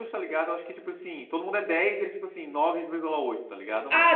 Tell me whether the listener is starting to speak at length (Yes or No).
Yes